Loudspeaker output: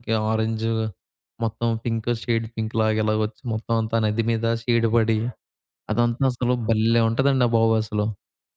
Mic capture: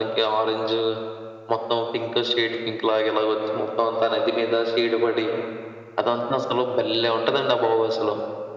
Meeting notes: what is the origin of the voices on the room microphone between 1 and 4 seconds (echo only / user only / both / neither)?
echo only